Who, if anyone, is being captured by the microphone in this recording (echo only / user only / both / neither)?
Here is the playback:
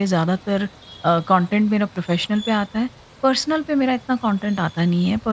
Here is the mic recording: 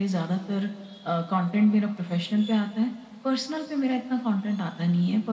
echo only